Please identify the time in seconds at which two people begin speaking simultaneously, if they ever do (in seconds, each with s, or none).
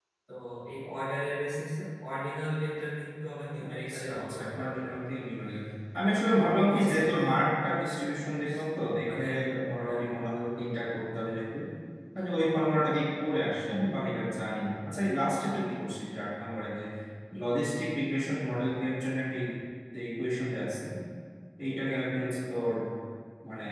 3.7 s